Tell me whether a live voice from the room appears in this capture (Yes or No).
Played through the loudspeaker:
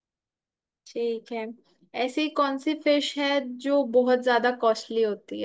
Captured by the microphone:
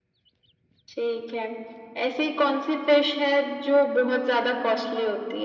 No